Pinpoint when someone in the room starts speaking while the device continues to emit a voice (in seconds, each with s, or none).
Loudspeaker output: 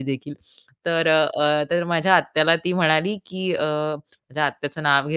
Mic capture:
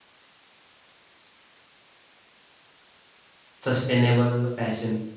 3.6 s